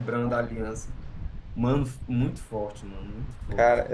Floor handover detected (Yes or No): No